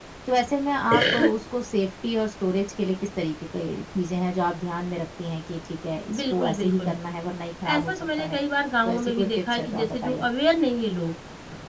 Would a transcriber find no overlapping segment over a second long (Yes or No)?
No